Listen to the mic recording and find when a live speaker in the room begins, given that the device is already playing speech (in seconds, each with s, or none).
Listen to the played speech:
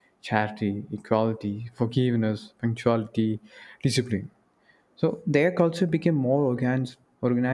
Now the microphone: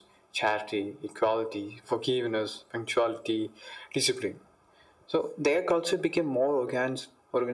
none